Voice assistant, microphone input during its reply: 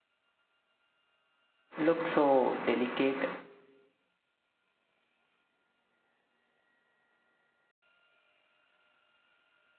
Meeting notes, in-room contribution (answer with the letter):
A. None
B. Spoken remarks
B